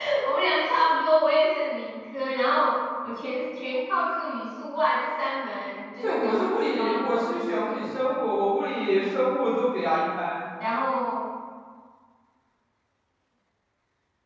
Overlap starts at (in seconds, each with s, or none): 6.0 s